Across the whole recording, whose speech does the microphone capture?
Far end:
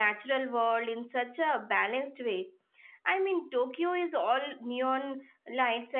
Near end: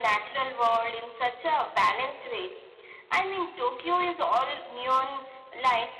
echo only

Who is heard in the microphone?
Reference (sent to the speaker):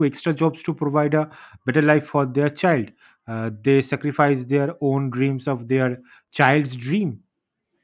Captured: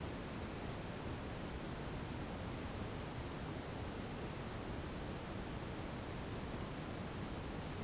neither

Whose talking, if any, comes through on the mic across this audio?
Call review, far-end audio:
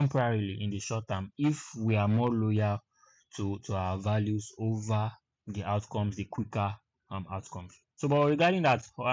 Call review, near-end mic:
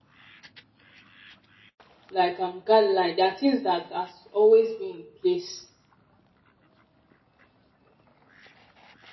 user only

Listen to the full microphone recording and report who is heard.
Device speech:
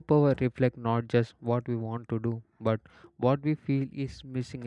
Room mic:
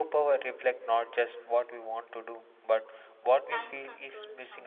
both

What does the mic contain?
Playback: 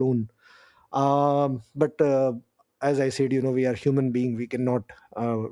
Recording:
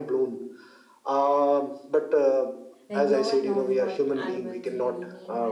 both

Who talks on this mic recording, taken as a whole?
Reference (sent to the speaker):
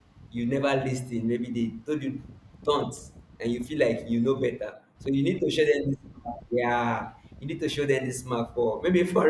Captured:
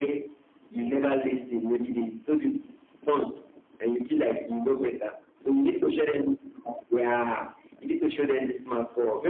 both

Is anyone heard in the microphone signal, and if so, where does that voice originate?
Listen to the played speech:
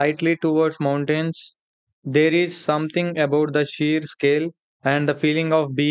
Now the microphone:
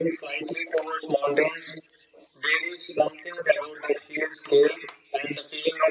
echo only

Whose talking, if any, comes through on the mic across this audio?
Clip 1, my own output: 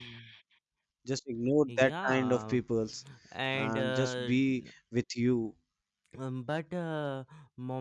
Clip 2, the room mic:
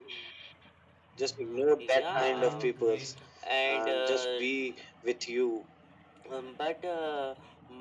both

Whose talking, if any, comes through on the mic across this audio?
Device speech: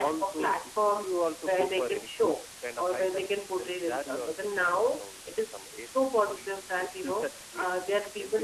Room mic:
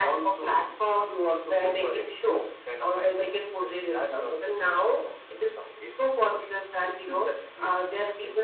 echo only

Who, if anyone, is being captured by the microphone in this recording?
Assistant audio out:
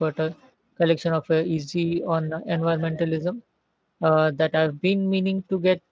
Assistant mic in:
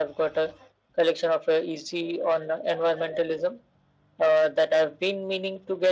echo only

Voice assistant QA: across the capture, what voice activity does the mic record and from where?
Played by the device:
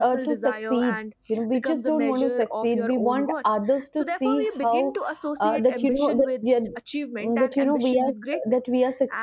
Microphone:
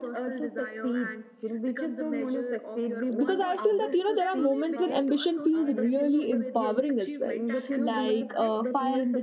both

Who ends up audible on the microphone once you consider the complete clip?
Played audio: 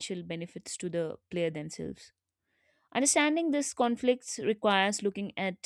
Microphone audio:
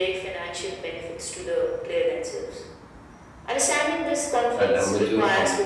both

